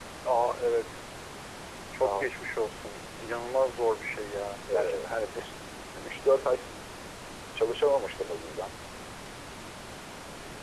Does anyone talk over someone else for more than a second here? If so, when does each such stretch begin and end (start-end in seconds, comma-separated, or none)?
none